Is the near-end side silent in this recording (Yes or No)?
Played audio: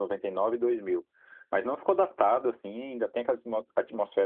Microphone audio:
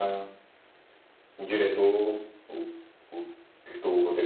No